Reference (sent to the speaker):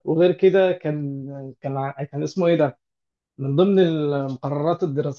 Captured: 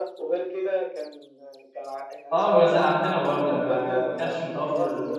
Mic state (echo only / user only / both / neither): both